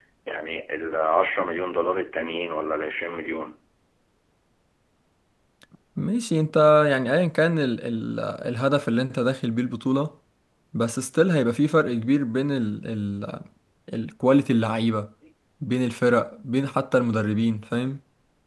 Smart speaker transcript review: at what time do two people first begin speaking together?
none

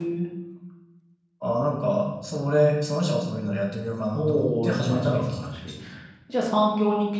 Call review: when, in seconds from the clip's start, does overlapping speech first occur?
4.1 s

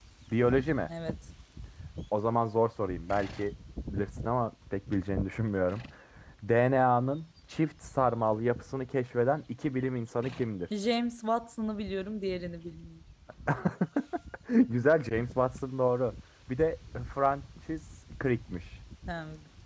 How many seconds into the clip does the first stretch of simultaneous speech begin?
none

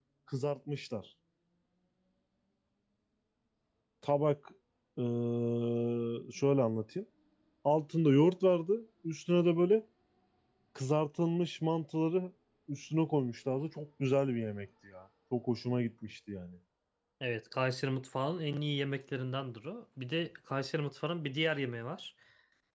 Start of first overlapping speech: none

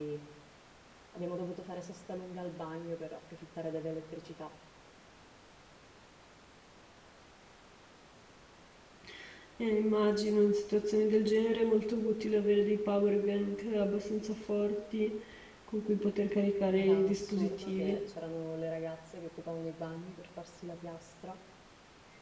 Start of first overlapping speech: 16.8 s

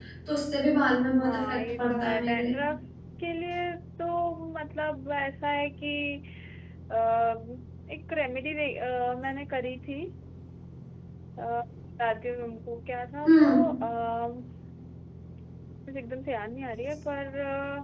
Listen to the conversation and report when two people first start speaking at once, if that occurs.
1.2 s

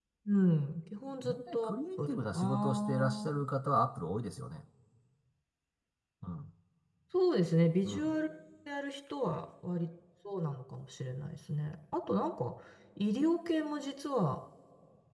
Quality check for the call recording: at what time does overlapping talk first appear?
1.2 s

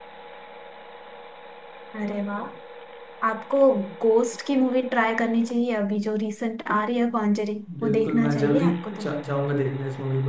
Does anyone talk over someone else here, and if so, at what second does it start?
7.7 s

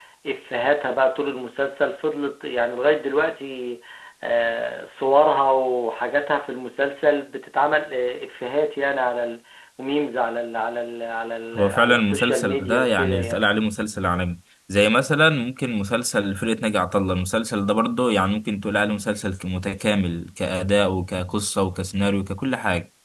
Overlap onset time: 11.5 s

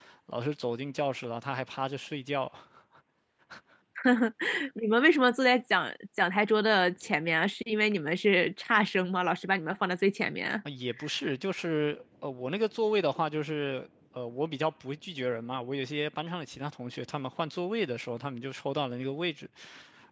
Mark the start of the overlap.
none

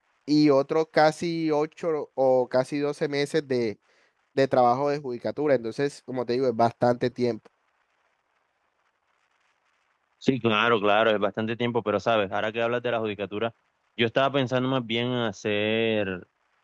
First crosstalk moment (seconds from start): none

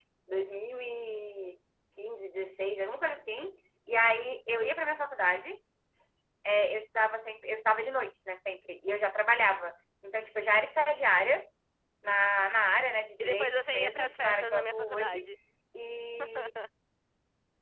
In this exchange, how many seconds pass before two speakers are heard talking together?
13.2 s

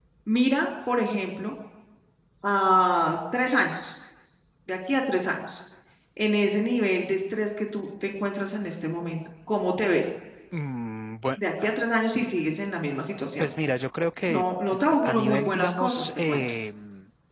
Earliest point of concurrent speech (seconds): 14.3 s

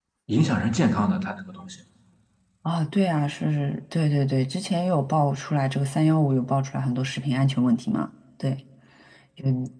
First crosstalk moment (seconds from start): none

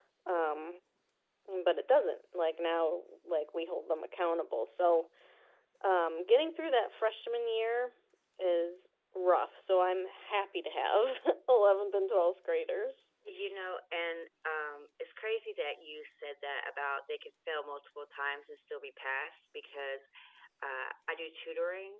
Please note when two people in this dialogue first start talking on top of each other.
none

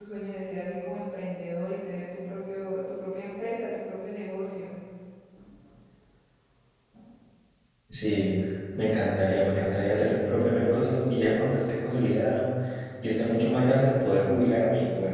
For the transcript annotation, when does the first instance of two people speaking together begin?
none

